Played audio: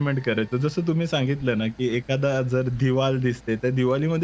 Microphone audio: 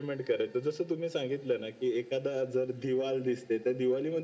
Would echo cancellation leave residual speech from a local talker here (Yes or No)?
No